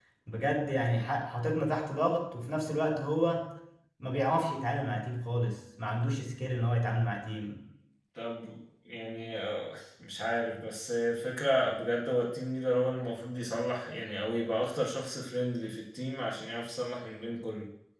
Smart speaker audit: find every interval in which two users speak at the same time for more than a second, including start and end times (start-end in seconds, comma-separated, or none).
none